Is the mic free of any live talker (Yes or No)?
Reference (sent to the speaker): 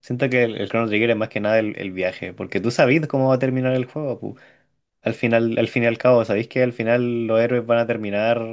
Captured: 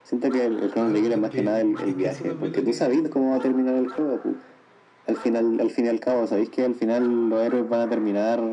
No